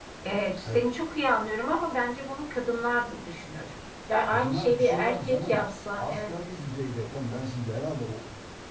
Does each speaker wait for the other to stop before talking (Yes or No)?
No